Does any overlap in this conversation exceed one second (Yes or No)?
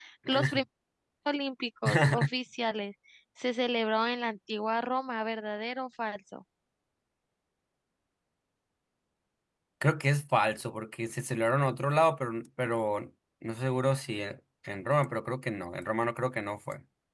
No